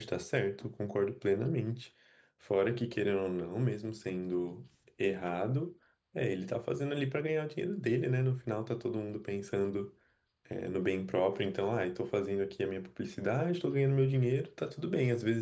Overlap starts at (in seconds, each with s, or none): none